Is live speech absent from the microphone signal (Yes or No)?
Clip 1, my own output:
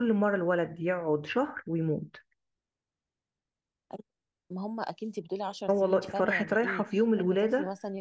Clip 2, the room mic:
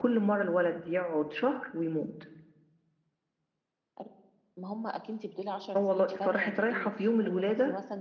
Yes